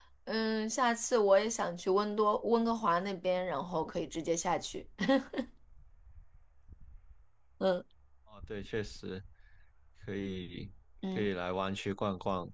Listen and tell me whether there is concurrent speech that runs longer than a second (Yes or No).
No